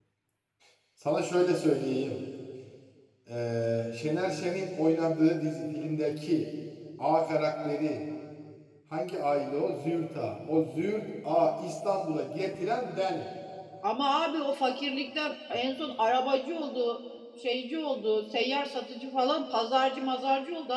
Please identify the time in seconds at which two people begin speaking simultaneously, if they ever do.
none

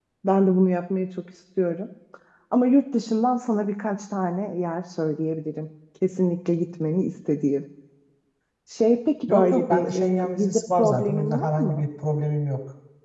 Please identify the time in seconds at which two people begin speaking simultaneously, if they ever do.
9.3 s

